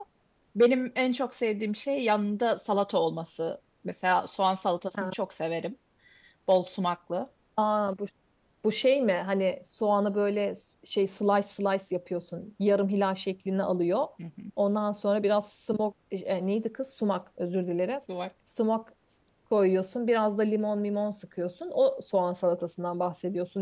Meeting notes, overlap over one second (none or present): none